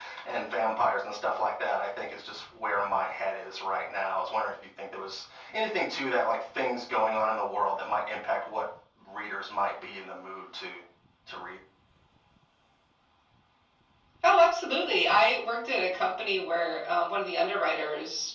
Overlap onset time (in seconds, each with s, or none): none